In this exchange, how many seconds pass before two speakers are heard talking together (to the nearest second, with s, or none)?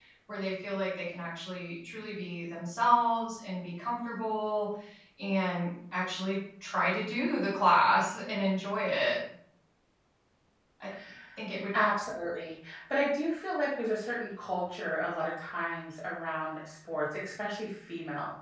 none